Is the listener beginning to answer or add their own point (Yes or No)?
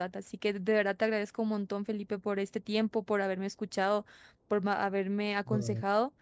No